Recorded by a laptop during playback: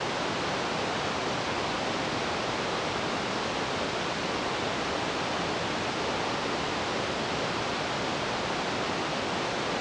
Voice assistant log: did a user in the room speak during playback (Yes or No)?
No